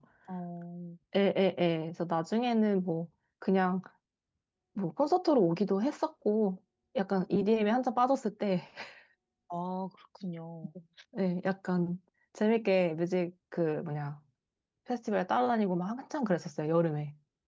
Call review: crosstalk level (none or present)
none